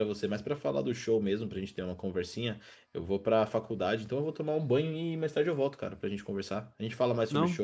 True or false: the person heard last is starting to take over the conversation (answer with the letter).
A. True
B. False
B